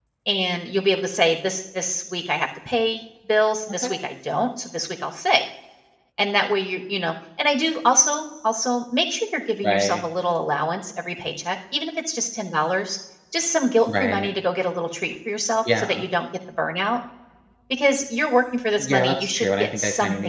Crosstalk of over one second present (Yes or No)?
Yes